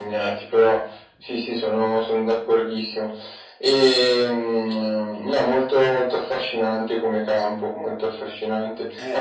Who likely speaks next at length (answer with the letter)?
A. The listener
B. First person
B